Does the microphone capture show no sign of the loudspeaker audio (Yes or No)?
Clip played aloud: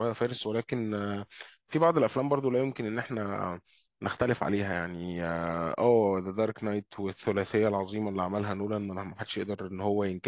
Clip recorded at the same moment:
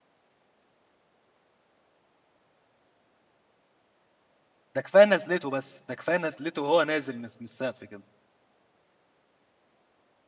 Yes